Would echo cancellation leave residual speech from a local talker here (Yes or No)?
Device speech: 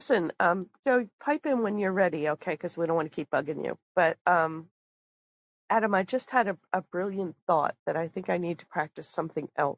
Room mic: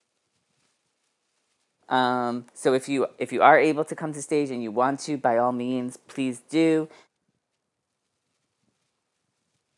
Yes